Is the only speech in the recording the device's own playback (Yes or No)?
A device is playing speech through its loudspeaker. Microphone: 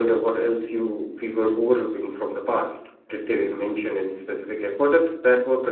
Yes